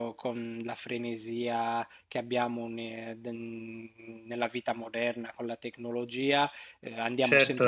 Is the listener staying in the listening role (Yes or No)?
Yes